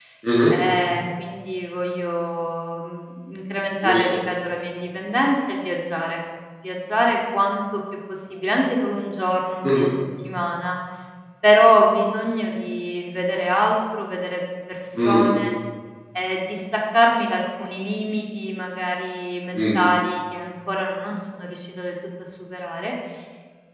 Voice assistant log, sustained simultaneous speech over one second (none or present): none